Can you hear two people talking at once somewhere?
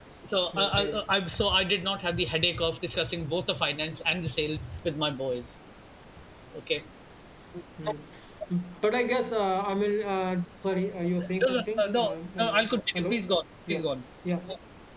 Yes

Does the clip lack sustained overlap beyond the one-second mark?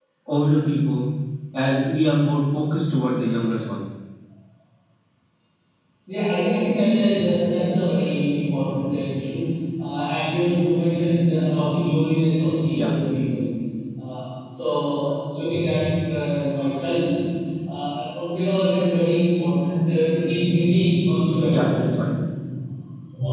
Yes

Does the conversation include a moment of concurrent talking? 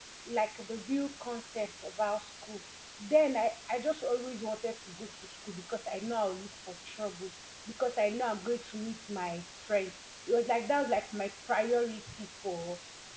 No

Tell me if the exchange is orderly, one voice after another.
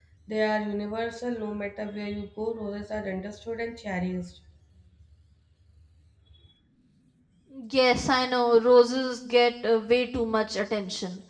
Yes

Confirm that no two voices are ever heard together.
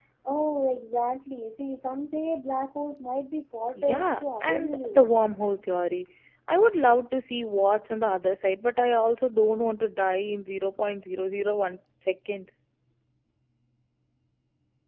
No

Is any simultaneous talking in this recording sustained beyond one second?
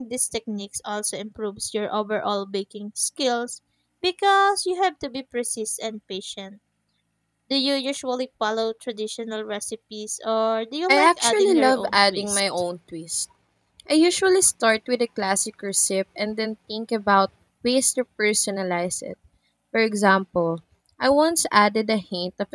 Yes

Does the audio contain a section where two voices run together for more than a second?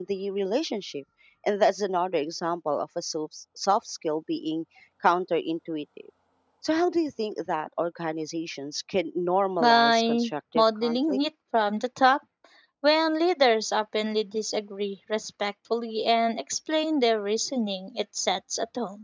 Yes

